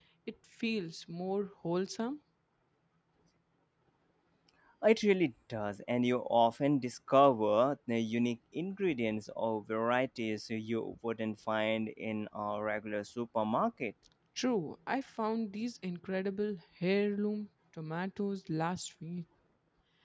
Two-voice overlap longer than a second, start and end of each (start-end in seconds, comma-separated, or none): none